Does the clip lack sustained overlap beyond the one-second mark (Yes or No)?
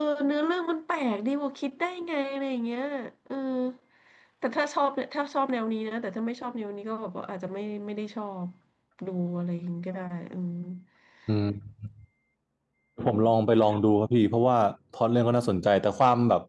Yes